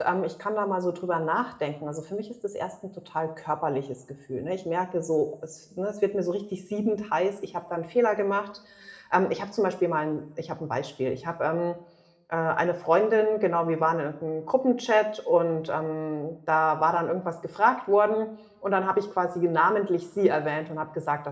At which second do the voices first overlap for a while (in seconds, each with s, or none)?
none